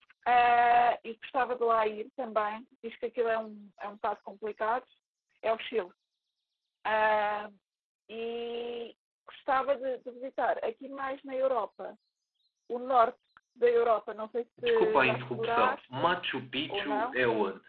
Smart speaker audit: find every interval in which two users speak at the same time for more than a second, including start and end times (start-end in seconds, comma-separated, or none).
14.6-16.0